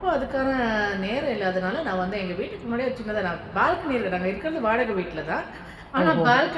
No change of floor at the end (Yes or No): Yes